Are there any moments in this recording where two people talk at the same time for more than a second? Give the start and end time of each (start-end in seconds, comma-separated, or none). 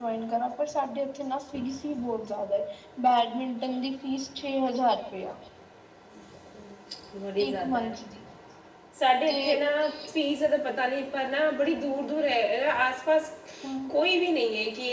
none